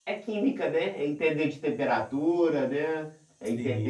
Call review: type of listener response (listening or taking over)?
taking over